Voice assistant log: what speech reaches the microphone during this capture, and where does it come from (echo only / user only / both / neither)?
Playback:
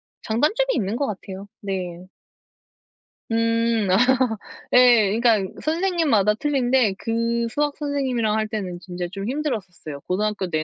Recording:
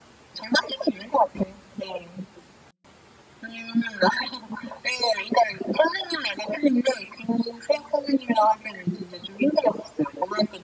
echo only